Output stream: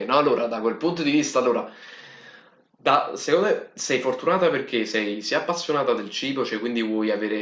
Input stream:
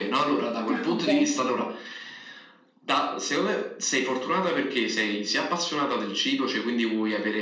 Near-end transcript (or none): Ah, ok.